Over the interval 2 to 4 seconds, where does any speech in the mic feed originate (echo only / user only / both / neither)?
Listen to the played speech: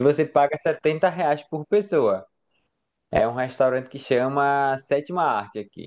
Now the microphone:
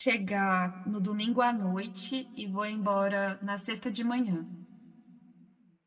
user only